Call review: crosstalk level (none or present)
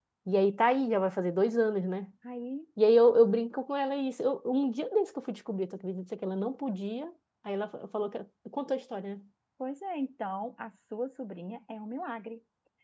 none